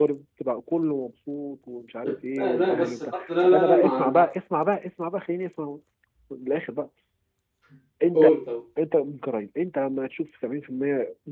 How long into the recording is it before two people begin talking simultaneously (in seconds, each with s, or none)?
2.4 s